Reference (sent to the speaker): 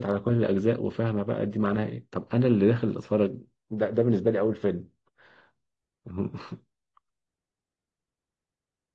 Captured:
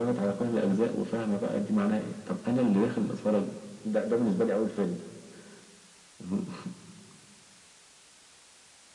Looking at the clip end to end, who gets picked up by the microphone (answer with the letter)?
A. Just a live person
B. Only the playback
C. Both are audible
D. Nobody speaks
B